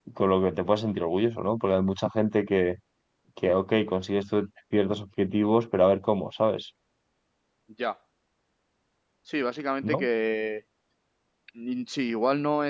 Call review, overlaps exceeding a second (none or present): none